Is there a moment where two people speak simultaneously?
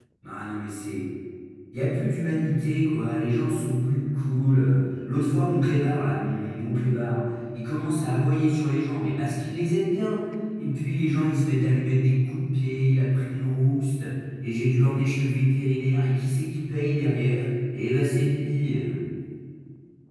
No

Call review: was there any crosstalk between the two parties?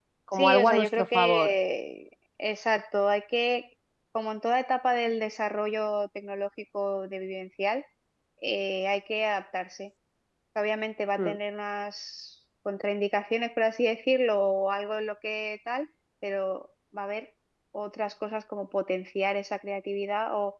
Yes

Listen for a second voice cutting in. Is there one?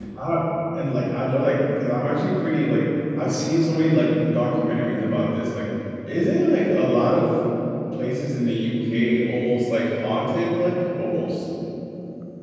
No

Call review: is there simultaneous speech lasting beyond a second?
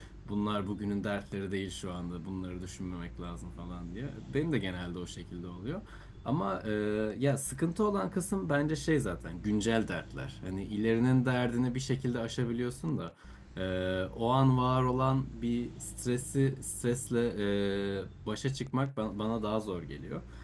No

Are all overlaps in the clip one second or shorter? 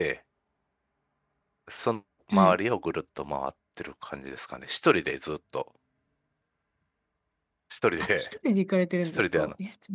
Yes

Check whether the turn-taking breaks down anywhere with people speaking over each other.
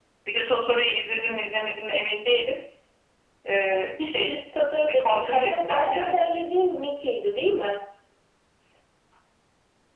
Yes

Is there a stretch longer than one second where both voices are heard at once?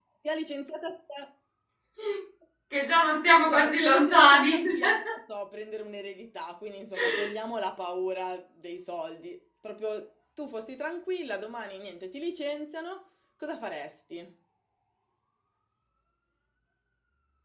Yes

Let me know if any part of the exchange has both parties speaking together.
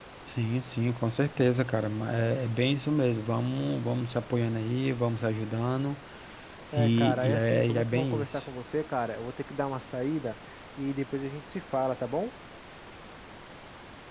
Yes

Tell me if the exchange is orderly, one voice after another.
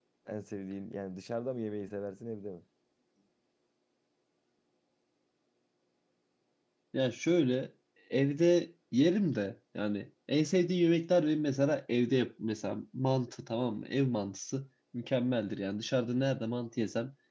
Yes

